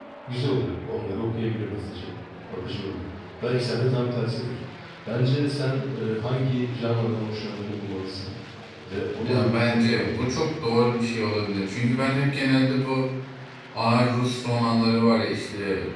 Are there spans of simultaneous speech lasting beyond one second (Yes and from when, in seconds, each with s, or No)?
Yes, from 9.2 s